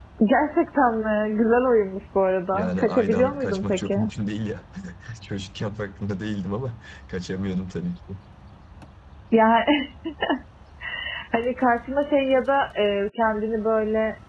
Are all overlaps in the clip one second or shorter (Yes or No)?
No